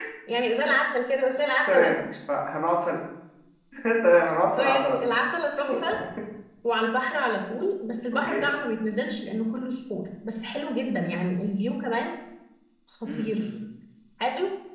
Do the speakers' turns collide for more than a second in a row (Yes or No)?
No